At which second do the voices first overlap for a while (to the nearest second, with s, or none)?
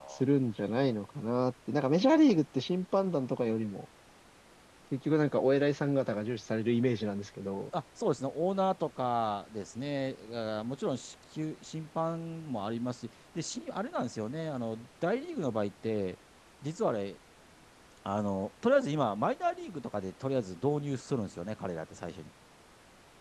none